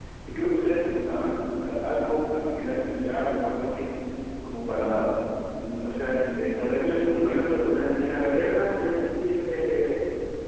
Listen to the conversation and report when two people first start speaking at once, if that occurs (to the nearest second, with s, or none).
7 s